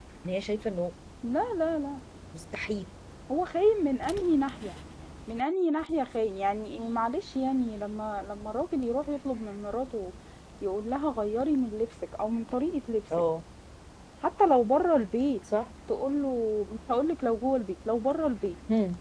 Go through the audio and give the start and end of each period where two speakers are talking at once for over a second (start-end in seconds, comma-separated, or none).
none